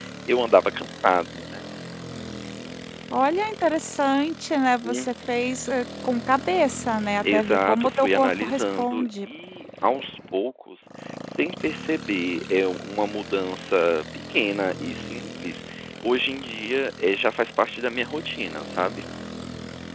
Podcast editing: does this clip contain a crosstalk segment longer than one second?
Yes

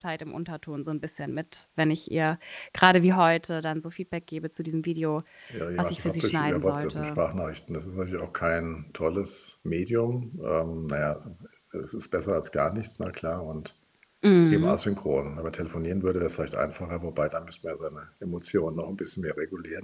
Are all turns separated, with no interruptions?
No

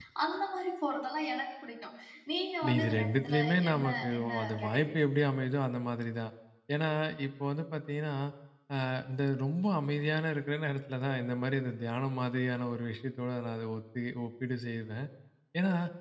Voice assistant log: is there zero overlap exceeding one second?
No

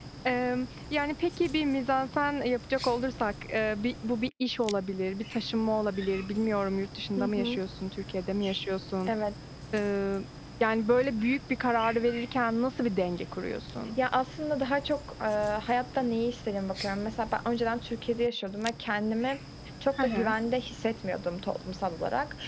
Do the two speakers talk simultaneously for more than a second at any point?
No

